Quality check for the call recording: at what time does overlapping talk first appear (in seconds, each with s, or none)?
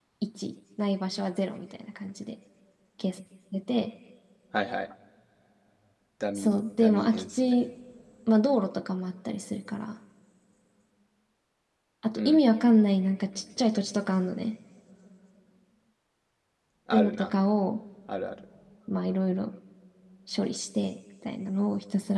6.3 s